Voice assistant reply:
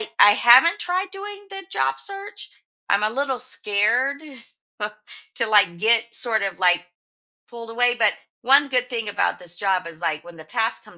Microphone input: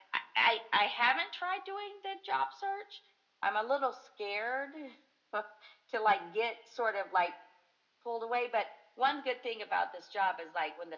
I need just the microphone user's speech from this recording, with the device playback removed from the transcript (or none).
none